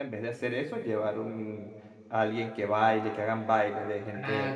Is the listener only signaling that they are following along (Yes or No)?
No